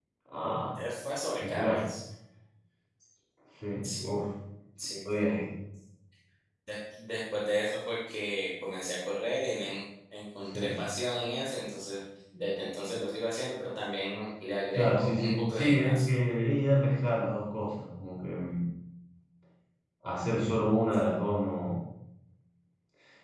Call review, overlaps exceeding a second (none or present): present